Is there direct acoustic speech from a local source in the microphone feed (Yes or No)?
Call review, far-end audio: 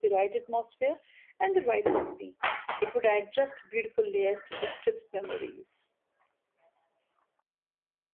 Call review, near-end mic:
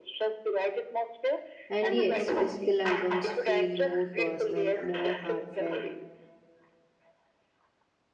Yes